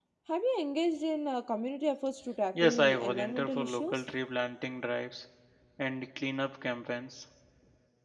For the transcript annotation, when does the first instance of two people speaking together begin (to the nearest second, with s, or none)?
3 s